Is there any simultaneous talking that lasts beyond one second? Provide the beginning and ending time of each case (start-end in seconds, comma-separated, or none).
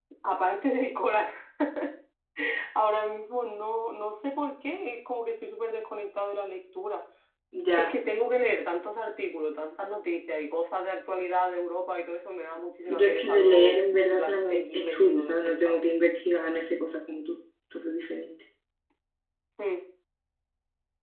12.9-15.8